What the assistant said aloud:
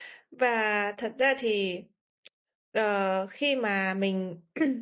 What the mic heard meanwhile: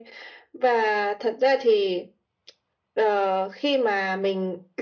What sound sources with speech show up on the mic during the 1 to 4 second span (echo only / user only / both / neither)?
echo only